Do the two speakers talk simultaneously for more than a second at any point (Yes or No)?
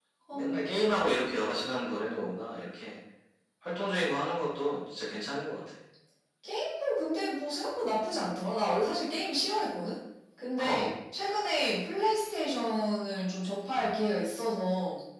No